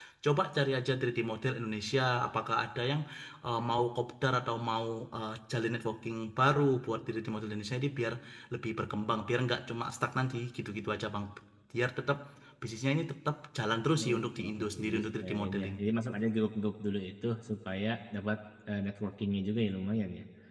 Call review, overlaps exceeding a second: present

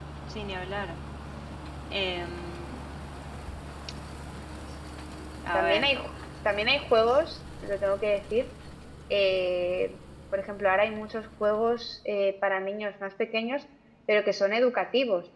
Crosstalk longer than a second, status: none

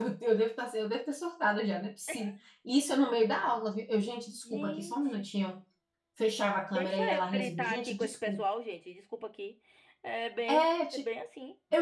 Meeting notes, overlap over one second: present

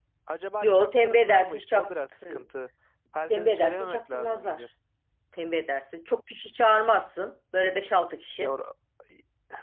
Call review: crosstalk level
present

